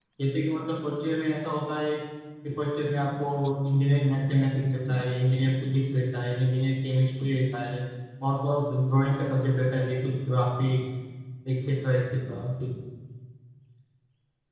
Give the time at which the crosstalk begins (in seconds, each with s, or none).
none